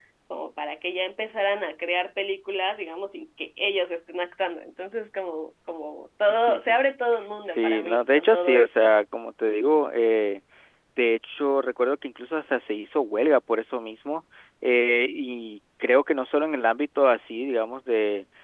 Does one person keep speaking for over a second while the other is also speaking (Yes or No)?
Yes